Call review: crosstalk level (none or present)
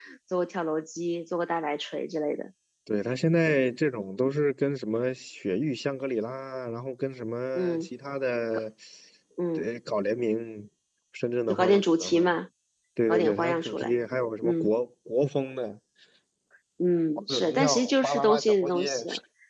present